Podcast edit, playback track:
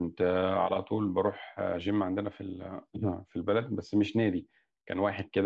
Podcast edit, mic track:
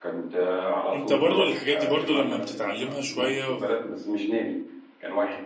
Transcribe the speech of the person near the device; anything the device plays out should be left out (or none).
انت برضو الحاجات دي برضو لما بتتعلمها شوية